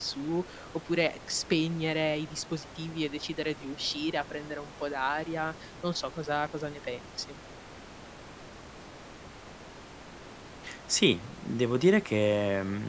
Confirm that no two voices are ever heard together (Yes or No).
Yes